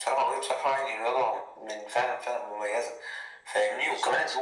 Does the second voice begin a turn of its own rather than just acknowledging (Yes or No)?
No